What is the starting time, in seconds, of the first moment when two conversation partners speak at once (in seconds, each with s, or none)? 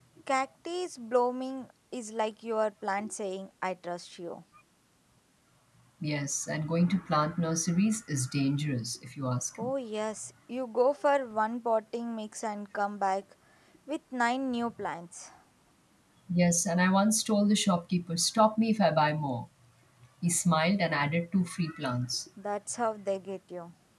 none